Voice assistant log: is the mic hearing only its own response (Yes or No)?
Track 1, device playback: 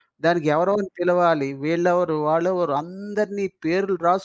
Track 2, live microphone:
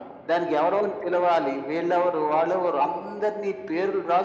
Yes